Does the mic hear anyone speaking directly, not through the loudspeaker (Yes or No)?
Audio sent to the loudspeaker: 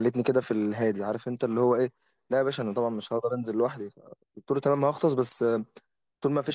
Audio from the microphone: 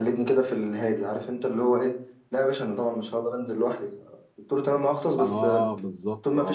Yes